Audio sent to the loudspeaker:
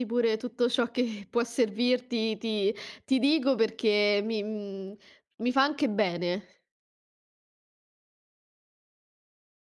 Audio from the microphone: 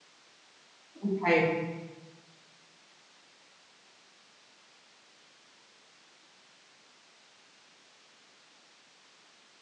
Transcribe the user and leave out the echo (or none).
Okay.